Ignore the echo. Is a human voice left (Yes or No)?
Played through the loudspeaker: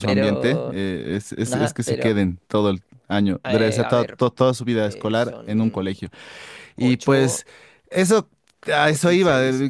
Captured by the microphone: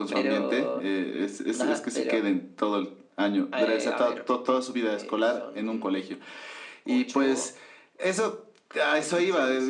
No